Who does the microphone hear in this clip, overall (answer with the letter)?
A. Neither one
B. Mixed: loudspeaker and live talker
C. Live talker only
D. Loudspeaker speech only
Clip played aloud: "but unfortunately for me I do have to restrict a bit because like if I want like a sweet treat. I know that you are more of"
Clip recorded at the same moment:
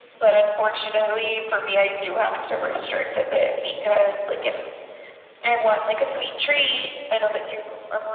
D